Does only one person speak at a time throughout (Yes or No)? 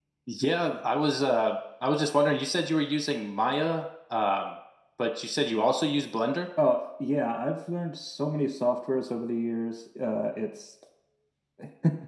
Yes